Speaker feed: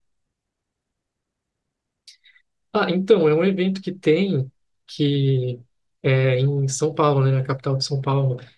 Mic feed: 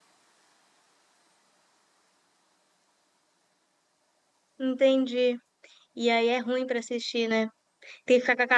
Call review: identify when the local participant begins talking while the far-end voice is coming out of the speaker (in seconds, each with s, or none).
4.6 s